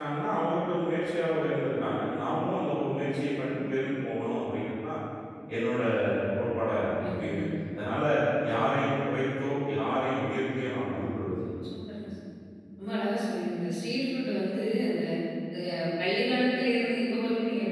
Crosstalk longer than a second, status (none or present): none